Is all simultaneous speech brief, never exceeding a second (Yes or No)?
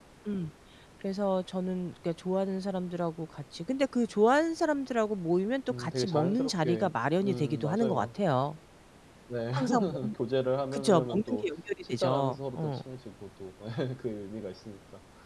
No